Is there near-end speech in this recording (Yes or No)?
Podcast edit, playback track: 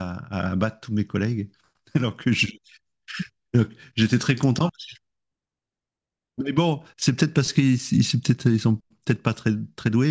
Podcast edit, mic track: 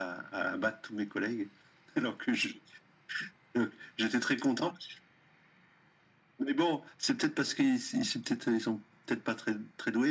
No